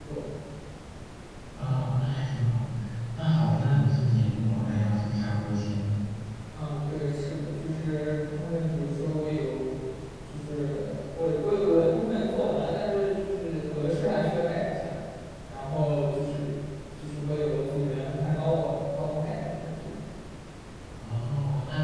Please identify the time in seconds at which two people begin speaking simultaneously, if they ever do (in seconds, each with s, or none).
none